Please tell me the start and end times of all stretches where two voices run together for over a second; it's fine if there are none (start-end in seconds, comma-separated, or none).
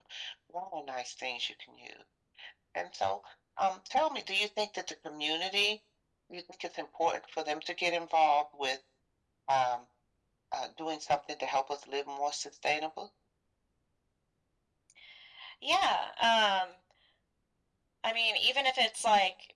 none